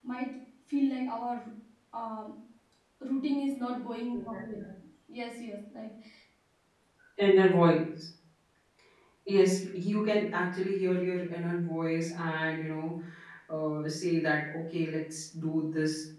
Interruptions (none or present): none